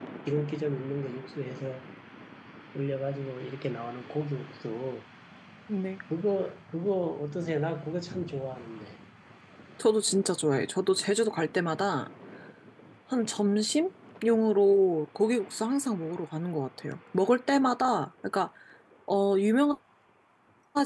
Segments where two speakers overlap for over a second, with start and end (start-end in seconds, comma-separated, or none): none